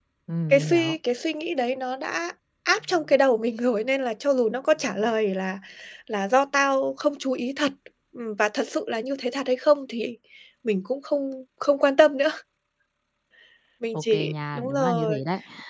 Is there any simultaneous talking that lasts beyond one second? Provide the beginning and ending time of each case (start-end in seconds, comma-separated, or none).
13.9-15.2